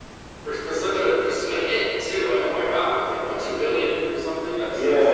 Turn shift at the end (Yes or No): Yes